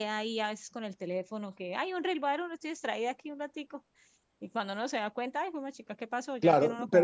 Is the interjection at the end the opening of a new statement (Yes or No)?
Yes